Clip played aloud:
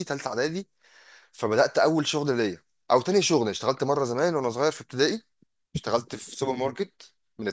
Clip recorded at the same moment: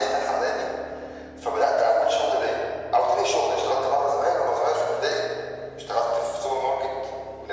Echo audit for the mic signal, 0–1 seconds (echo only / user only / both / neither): echo only